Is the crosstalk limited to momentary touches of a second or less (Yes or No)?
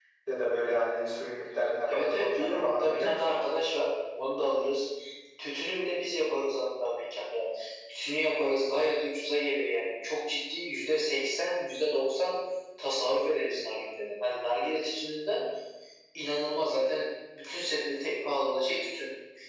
No